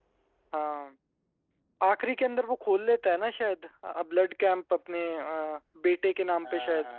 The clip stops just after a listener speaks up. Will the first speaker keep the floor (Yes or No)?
No